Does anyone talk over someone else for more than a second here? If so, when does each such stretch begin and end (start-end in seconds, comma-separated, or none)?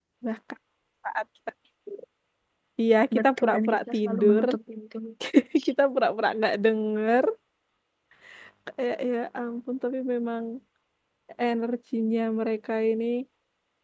3.2-4.4